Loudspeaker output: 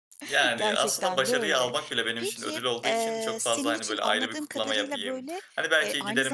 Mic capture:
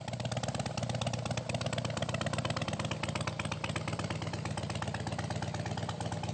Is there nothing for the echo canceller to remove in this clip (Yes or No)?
Yes